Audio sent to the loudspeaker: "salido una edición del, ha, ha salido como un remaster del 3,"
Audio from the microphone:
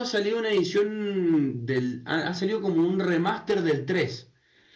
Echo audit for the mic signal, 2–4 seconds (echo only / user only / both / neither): echo only